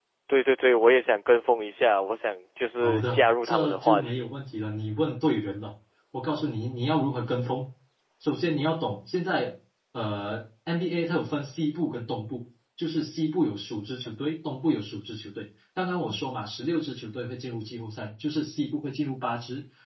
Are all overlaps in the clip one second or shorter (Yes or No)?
No